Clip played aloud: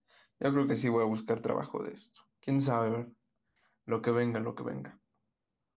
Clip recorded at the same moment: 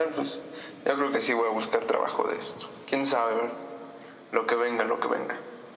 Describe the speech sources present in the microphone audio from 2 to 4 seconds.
echo only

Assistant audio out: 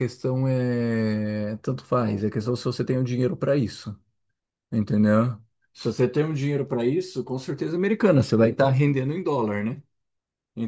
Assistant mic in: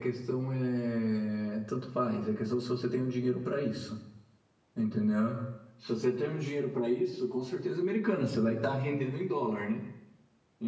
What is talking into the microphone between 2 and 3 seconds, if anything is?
echo only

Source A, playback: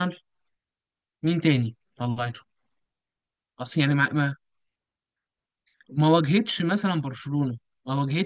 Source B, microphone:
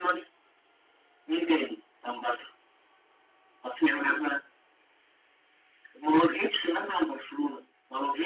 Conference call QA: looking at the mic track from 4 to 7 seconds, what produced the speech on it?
echo only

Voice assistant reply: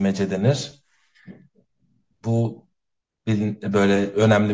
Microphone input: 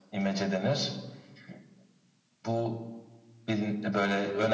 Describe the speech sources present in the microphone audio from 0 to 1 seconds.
echo only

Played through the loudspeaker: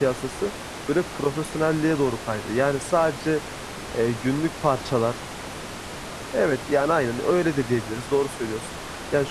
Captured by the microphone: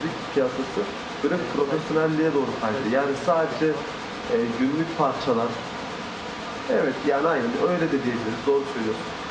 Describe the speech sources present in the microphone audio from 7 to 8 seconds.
echo only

